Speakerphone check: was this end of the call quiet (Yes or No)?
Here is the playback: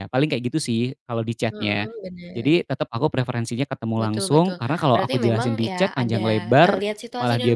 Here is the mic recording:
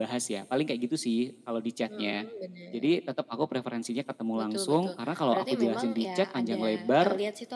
Yes